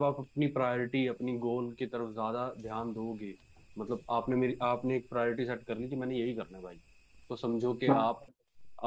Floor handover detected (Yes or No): No